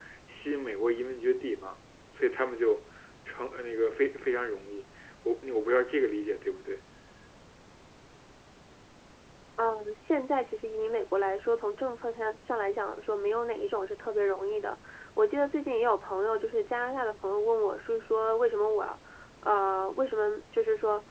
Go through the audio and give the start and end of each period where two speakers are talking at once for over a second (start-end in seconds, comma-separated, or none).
none